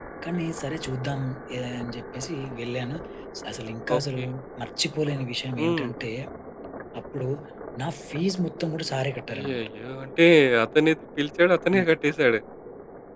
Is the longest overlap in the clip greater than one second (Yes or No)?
No